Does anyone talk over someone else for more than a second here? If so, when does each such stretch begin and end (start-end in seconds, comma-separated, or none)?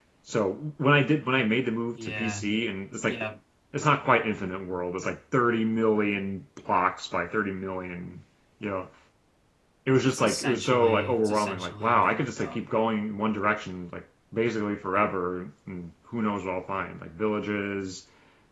10.0-12.6